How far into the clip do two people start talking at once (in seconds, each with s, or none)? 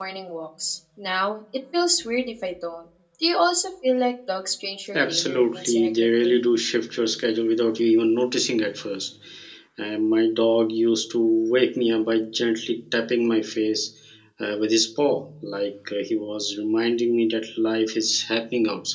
4.9 s